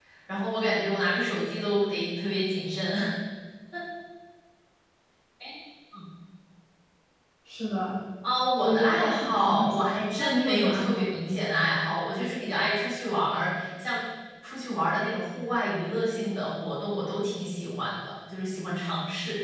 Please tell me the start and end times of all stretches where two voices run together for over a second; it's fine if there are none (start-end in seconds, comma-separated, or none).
8.6-11.2